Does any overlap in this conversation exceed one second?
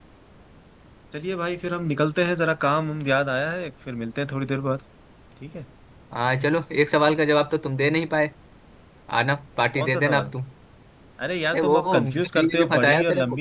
Yes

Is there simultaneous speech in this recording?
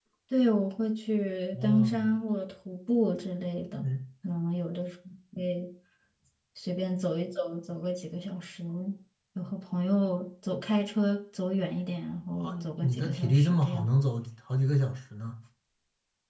Yes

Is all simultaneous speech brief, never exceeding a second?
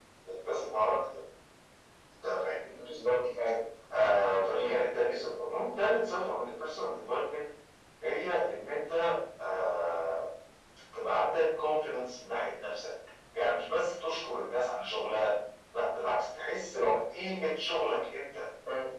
Yes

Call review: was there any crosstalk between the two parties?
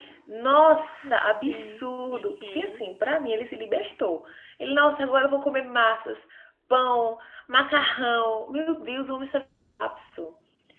Yes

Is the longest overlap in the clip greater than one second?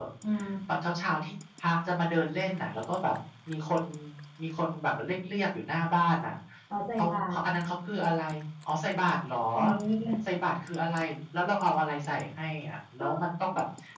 No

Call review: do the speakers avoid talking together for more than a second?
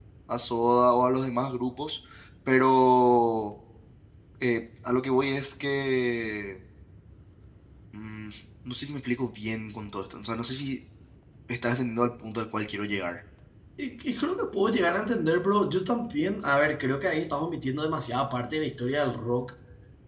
Yes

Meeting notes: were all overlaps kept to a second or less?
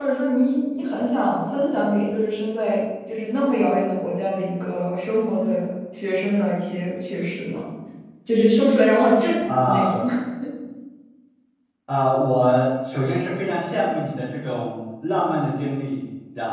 Yes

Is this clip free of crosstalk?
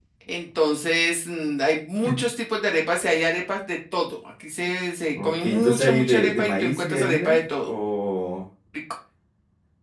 No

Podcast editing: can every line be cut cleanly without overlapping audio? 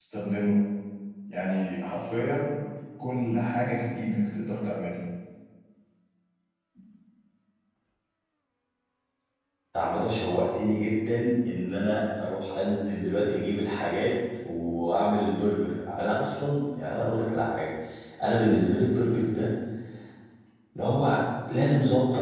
Yes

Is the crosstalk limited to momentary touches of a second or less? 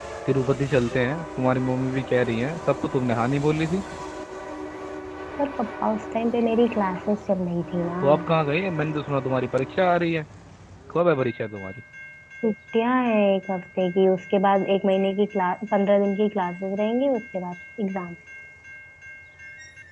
Yes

